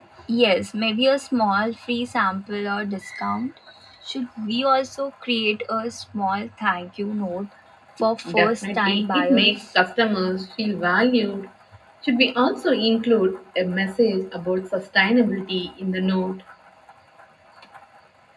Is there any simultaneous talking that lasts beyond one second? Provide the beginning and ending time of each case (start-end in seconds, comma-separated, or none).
8.3-9.6